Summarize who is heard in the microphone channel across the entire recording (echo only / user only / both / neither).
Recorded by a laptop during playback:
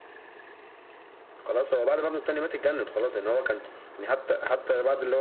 echo only